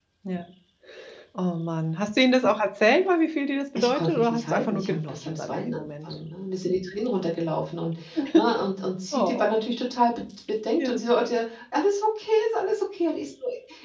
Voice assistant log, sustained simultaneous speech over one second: present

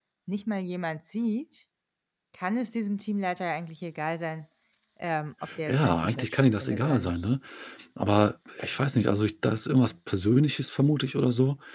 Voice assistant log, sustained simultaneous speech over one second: present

